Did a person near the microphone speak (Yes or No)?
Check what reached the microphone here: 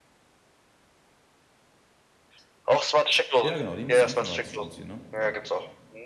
Yes